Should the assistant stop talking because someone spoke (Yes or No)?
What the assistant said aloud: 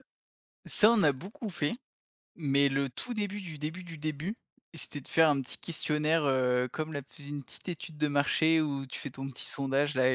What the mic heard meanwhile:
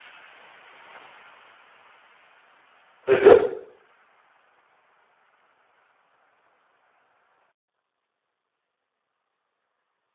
Yes